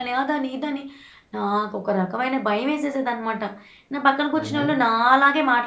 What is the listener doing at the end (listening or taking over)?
listening